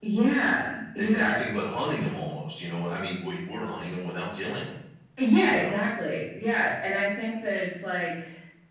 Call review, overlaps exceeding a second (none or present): none